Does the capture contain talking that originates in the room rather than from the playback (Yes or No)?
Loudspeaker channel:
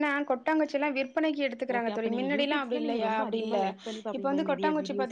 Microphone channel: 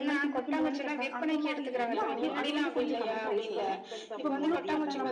Yes